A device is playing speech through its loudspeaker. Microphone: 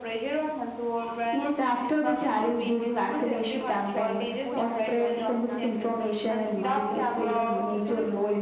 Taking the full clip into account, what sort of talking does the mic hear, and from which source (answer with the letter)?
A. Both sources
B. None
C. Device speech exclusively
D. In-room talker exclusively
A